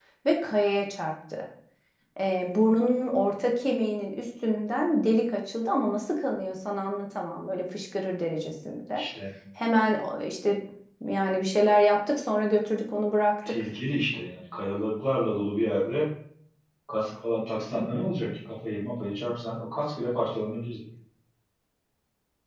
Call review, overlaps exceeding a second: none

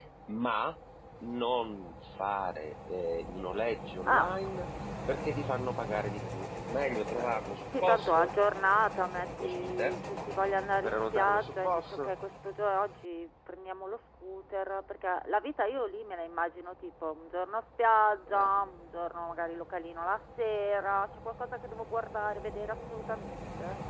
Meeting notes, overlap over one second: present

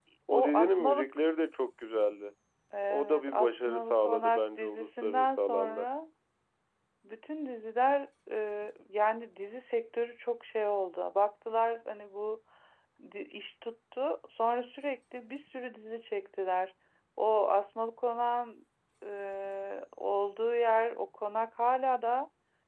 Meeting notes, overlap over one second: present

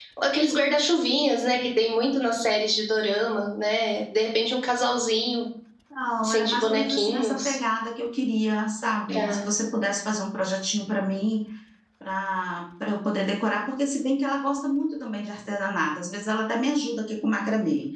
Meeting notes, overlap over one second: present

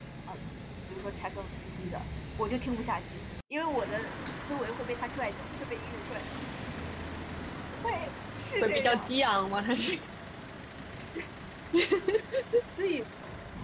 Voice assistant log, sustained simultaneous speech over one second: none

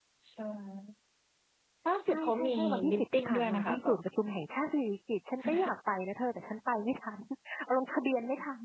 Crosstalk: present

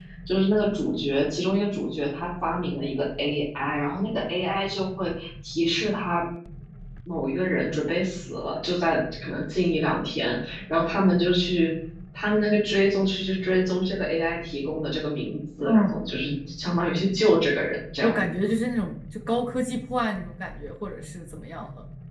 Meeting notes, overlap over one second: none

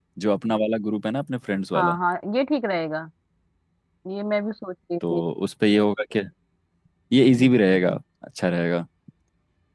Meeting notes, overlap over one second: none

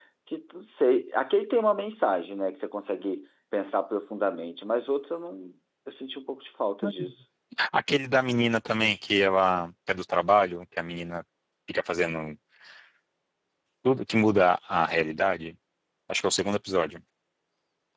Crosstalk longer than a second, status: none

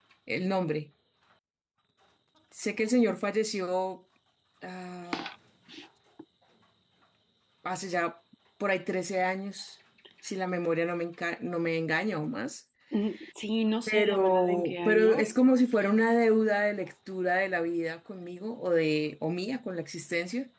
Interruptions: present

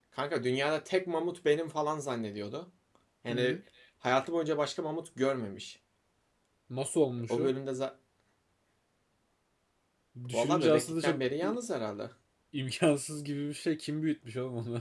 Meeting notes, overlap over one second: present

